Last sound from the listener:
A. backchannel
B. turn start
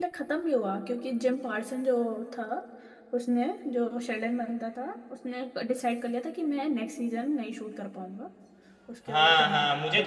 B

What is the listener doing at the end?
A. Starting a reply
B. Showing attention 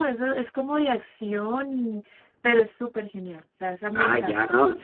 A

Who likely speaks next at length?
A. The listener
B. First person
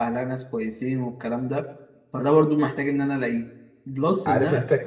A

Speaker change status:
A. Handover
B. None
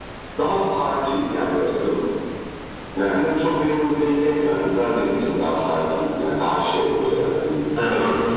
A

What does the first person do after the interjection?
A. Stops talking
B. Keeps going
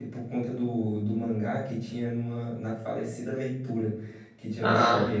B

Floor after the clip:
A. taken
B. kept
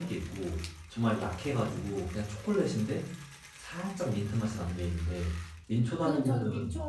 A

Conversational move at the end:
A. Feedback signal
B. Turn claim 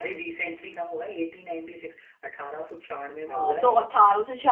B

